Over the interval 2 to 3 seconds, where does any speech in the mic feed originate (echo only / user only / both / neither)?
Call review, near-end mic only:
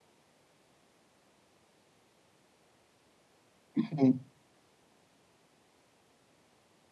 neither